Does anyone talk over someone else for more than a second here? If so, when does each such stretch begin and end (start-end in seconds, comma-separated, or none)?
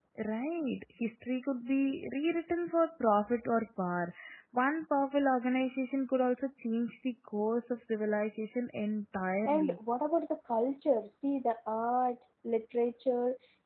none